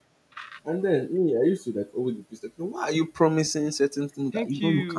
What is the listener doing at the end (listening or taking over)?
taking over